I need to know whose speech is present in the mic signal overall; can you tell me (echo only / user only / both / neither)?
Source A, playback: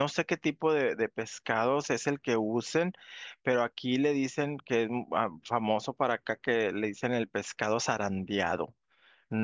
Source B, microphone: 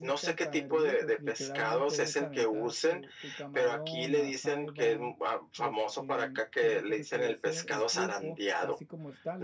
both